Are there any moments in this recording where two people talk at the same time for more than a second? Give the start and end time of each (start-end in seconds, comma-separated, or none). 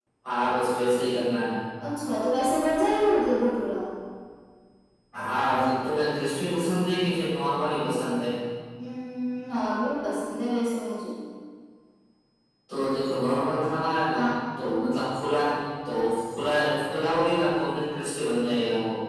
none